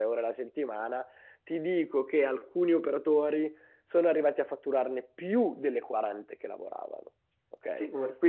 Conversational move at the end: taking over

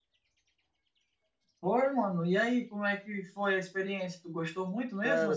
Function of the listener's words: taking over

